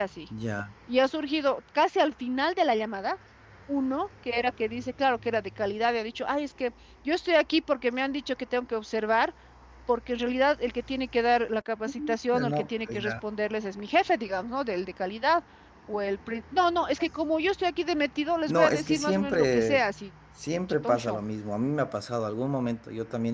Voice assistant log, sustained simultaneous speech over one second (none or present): present